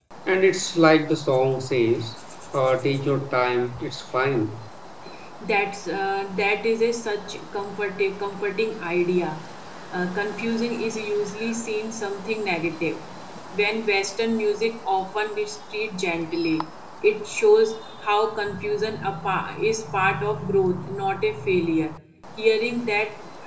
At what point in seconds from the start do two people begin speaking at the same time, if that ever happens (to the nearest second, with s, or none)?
none